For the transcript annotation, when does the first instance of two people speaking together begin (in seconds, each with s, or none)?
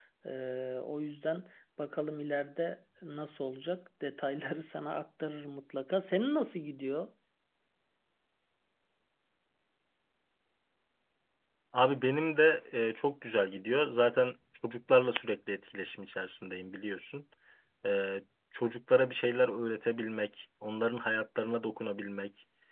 none